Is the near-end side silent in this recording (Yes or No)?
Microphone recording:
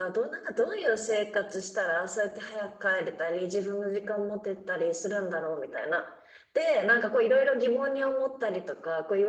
Yes